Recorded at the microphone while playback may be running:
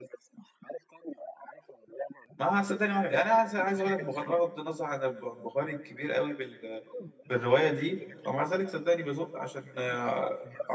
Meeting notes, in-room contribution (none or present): present